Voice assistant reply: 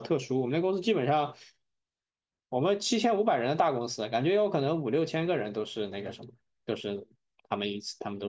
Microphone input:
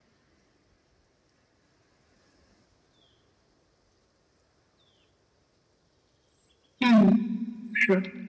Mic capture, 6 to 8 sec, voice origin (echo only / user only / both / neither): user only